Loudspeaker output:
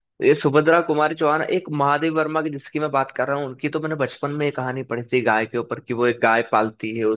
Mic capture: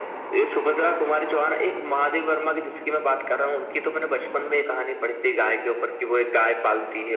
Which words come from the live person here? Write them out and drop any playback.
none

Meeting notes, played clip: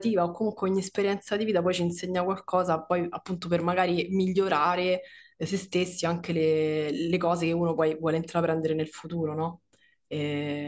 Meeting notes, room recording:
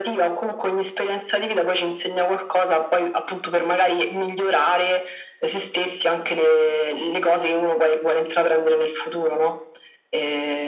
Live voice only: none

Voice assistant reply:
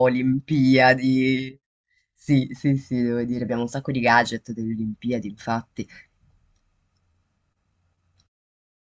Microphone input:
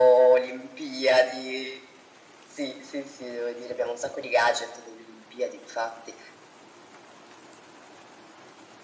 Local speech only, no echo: none

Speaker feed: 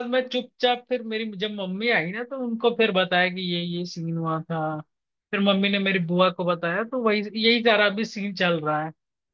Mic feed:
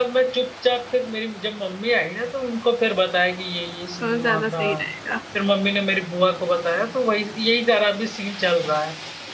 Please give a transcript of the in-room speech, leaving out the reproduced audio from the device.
तो ज्यादा सही रहेगा

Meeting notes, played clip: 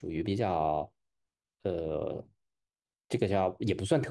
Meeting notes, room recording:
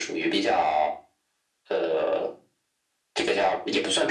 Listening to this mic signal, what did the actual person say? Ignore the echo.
none

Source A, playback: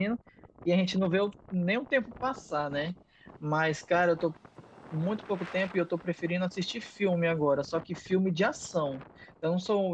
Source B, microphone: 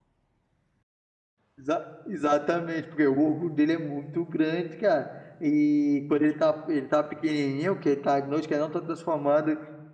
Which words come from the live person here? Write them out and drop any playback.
exa- exatamente, porque o orgulho dele é muito grande, cara. E quando ele tá, ele tá pequenininho, que ele tá noite que ele não tá transformado,

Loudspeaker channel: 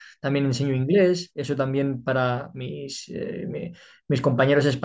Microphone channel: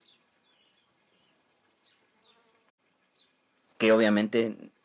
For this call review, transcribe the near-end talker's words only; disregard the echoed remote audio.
que obviamente

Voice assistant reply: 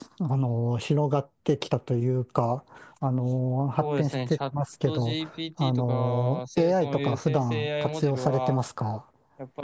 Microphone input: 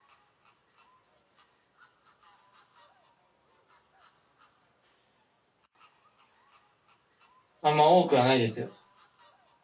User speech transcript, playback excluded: あんま多くはないですよ。

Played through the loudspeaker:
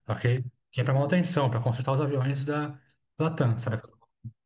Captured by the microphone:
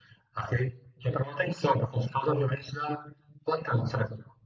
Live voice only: none

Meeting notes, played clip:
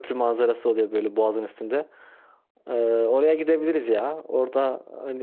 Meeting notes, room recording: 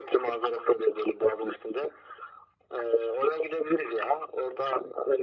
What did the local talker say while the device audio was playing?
none

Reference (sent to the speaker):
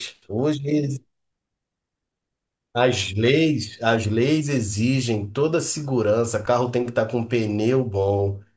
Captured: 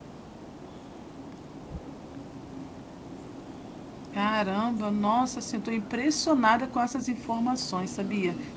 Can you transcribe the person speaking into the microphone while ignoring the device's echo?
Caramba, nossa, assim, estou impressionada com essas informações, sabia?

